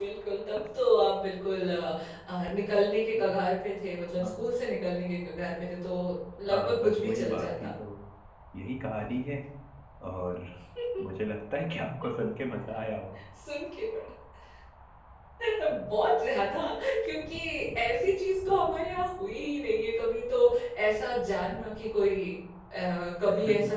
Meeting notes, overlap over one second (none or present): present